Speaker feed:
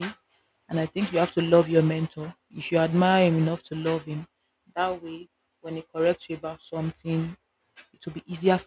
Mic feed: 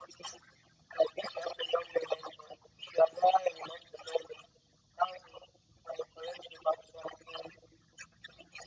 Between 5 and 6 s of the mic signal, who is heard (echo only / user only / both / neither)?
echo only